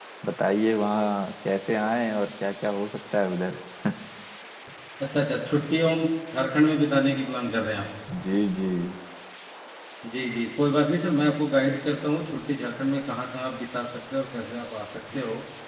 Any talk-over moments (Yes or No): No